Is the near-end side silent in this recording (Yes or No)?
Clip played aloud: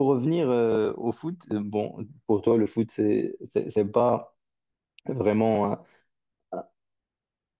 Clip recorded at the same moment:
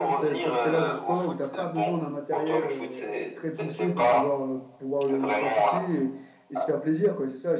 No